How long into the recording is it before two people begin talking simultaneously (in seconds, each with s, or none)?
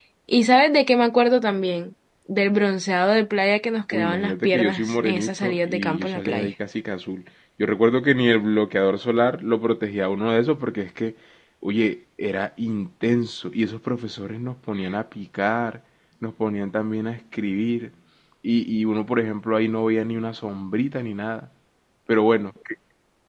3.9 s